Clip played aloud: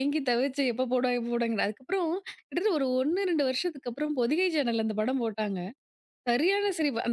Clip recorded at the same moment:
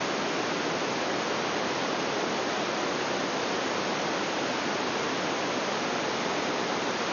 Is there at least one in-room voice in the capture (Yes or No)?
No